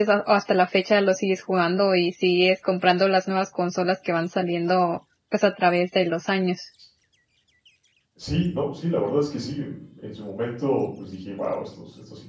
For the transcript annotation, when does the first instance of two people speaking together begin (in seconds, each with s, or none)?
none